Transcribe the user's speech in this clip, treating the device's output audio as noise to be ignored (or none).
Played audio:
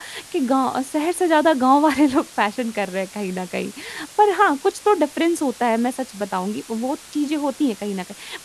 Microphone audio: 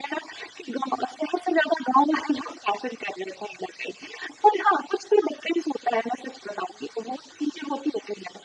none